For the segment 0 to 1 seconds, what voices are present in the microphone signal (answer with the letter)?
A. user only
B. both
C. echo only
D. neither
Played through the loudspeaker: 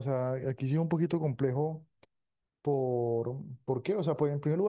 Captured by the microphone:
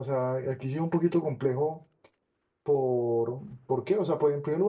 C